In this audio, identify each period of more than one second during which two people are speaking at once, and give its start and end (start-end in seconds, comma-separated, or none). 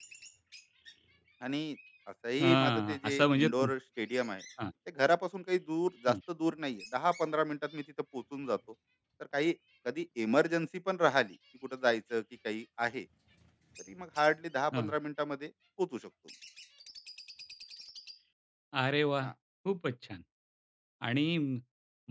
2.4-3.7